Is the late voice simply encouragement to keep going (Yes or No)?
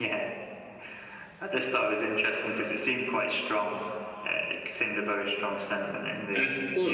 No